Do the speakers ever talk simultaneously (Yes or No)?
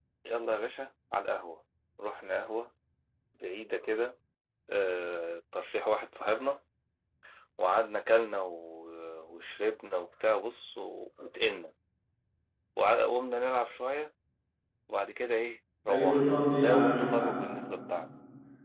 Yes